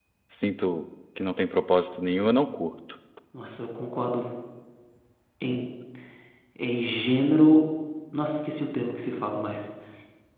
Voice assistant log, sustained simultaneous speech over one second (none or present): none